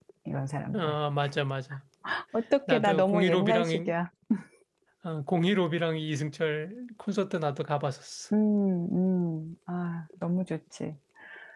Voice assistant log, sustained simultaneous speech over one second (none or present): present